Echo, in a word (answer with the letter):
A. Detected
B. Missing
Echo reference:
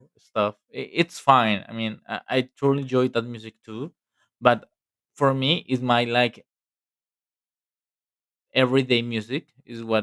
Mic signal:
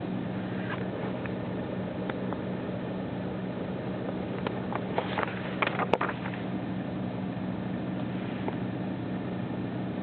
B